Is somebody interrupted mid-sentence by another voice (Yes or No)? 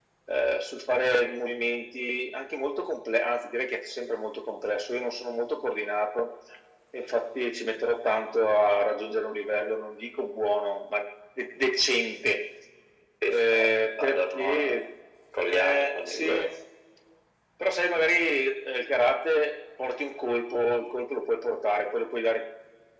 Yes